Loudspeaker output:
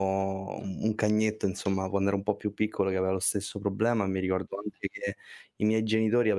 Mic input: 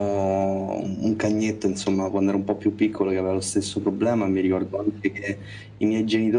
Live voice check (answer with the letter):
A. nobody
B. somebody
A